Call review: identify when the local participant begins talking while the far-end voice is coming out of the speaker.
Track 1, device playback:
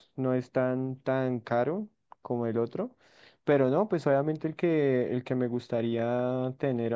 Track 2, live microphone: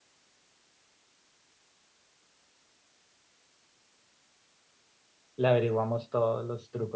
5.4 s

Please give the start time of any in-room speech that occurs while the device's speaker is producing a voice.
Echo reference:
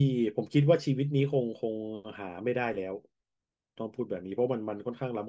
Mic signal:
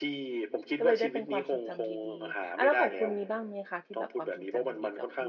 0.8 s

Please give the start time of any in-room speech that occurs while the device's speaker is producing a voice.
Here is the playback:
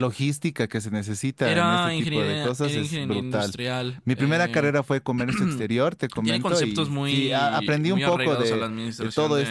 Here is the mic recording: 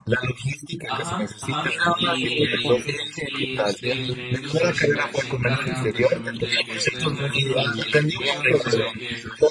0.8 s

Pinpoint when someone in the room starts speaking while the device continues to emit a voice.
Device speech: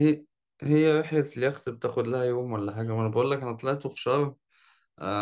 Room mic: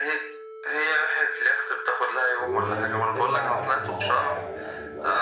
2.4 s

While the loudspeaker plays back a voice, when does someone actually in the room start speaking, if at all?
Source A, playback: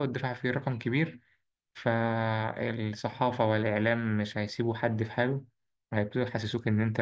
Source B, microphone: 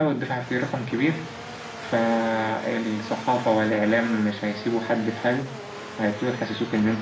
none

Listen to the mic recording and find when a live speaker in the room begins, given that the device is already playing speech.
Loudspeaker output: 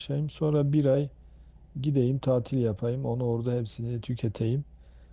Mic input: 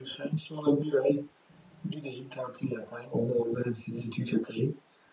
none

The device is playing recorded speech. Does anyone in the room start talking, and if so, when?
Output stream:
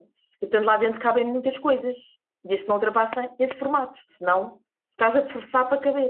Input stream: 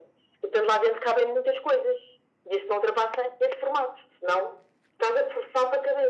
none

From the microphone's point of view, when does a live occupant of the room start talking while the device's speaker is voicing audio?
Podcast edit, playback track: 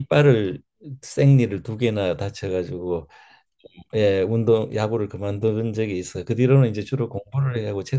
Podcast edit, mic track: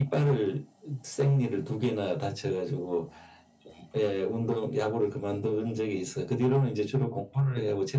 none

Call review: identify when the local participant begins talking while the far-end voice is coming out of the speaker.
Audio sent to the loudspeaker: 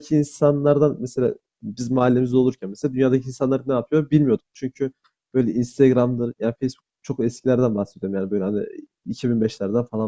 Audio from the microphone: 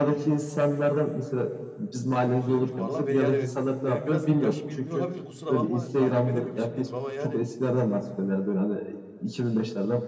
2.5 s

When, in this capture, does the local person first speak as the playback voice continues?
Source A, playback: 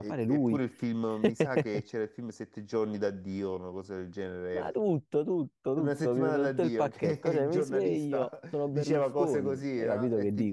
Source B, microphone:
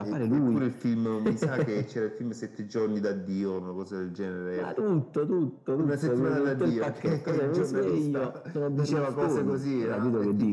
none

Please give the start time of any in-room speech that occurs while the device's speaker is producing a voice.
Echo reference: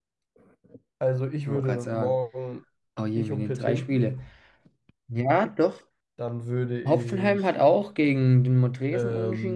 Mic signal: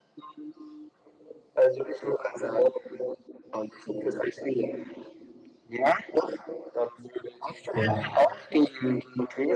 7.7 s

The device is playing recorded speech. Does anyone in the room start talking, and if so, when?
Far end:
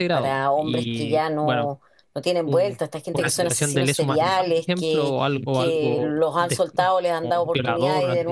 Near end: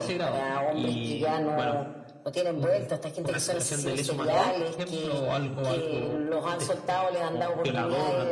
4.2 s

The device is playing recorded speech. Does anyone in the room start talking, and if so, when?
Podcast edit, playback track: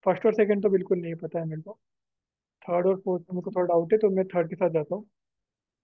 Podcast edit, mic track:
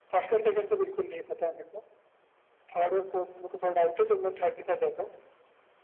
none

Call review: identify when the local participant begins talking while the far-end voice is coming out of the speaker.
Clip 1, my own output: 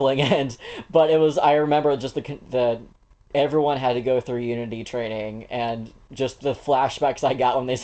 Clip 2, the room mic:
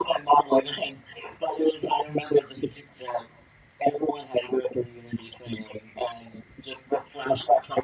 none

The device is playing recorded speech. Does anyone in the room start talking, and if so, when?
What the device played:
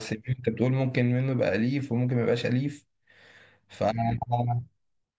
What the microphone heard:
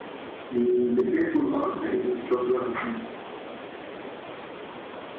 0.5 s

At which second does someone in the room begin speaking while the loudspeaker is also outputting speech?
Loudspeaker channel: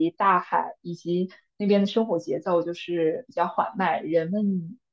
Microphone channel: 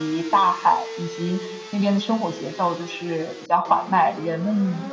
none

